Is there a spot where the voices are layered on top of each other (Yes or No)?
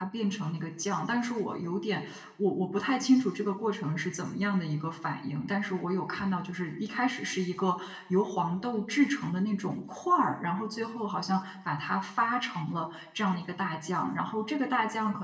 No